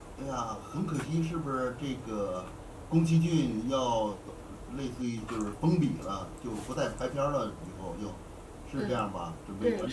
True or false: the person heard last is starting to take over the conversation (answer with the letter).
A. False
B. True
B